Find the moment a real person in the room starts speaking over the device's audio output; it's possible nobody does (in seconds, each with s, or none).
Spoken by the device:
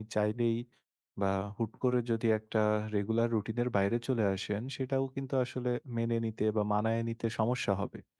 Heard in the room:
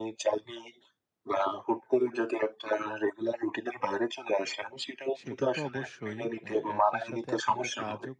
5.2 s